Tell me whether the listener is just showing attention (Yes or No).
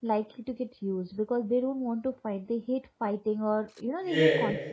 No